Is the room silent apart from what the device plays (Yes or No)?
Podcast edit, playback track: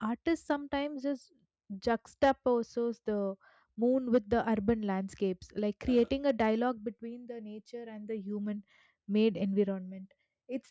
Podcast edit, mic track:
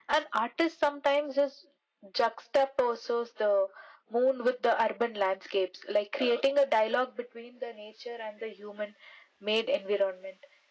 Yes